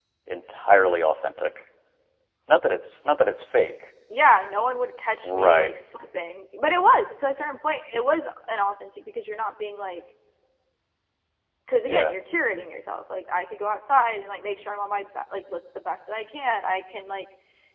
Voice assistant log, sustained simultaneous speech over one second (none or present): none